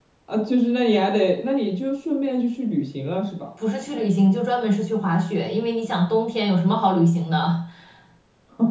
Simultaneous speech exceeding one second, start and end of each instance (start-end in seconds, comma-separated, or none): none